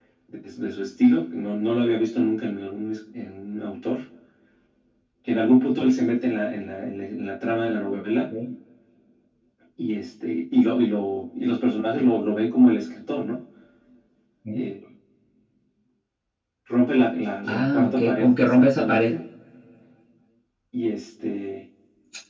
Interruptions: present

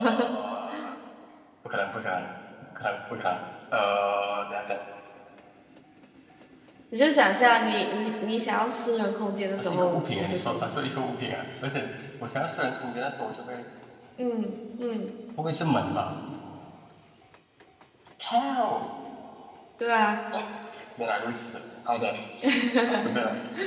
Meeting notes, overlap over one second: present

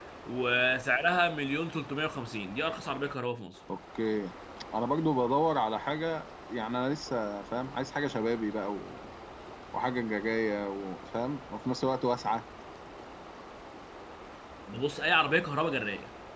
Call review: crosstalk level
none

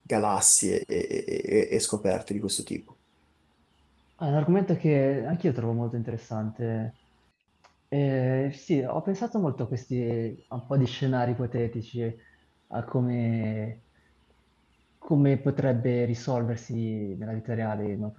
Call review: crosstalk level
none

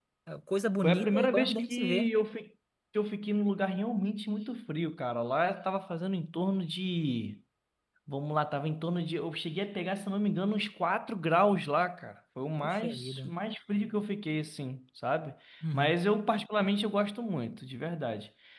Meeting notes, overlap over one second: present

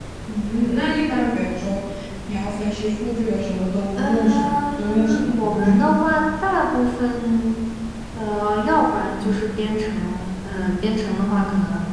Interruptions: present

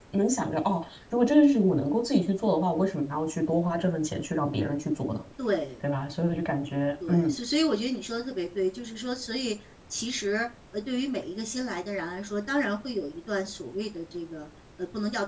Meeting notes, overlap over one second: none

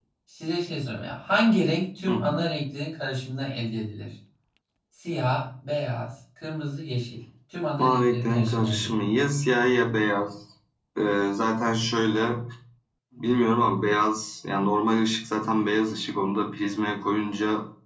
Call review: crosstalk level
present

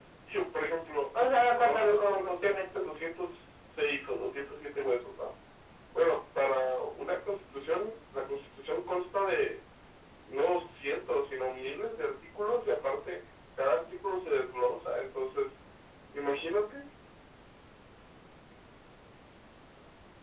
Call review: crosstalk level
present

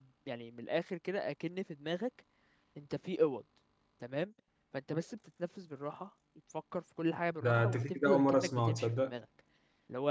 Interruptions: present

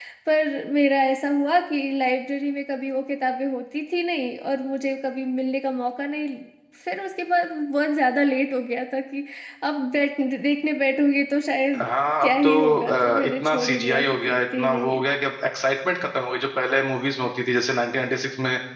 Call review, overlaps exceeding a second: present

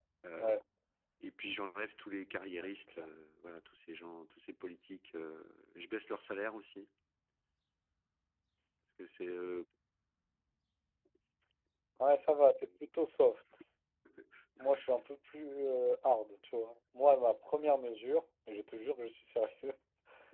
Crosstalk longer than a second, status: none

